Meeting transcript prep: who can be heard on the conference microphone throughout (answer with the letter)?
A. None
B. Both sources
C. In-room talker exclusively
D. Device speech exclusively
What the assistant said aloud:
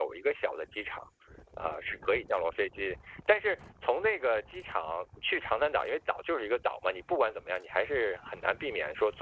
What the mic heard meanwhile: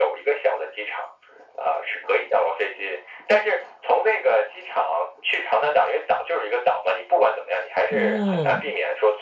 B